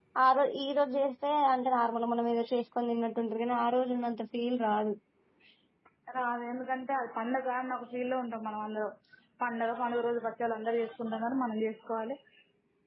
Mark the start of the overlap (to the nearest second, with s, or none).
none